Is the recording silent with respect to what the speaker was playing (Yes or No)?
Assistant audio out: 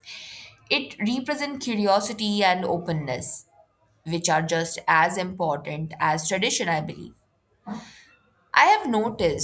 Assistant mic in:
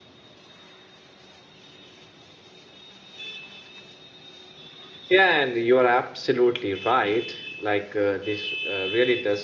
Yes